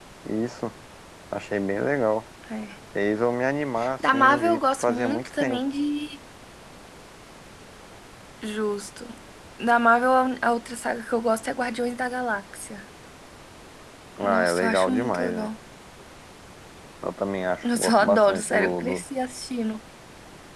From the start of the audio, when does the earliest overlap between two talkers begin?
4.1 s

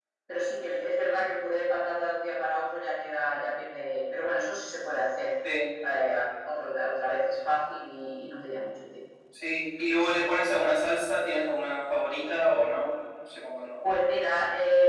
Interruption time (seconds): none

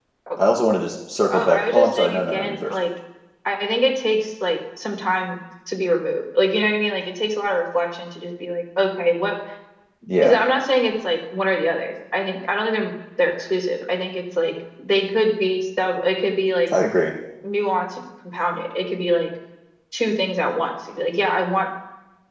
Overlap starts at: 1.3 s

